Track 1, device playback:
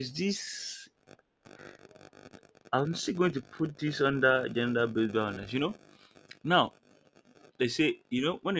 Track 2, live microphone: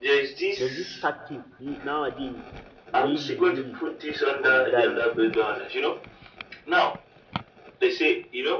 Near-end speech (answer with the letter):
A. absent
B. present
B